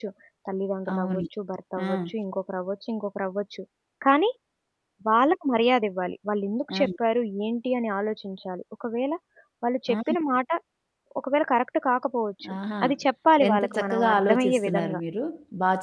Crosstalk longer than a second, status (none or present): present